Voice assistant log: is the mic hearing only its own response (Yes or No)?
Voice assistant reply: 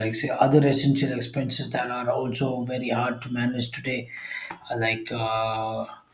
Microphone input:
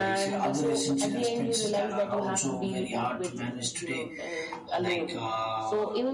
No